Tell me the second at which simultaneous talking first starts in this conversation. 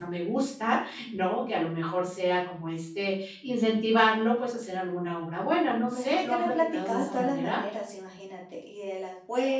6 s

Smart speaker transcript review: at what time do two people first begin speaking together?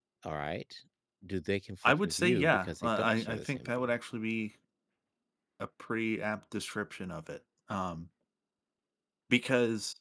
2 s

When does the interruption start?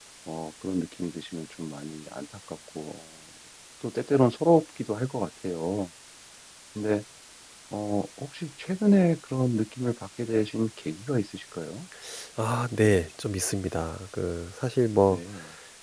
none

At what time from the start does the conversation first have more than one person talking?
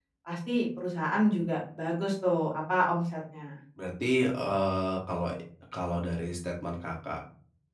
none

